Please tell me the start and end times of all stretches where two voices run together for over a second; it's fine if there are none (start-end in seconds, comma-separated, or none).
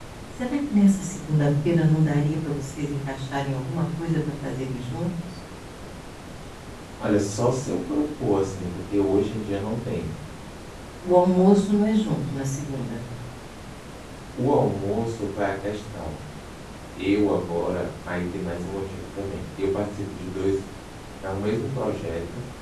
none